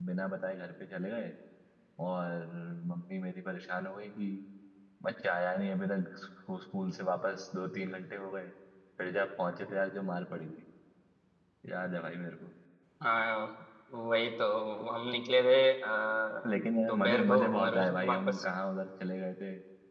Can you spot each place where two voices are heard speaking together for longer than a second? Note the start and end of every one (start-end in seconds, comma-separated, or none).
16.9-18.4